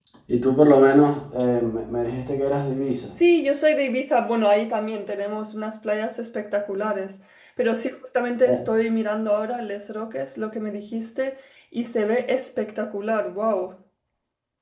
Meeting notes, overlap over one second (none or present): none